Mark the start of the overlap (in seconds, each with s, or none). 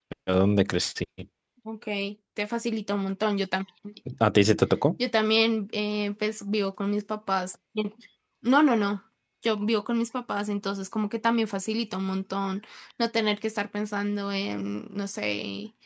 none